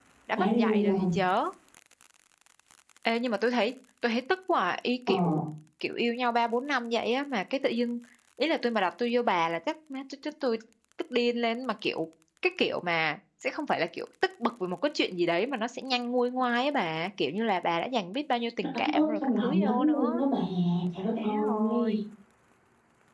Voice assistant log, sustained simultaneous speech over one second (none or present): present